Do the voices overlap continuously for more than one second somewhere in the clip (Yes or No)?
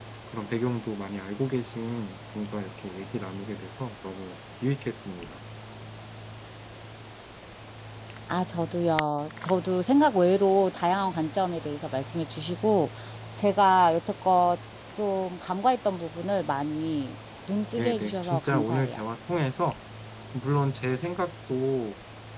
Yes